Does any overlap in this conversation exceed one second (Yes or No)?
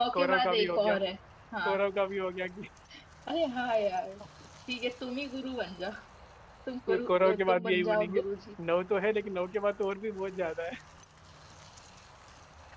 Yes